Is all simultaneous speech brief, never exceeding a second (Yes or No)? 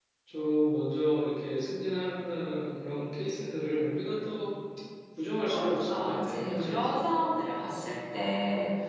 No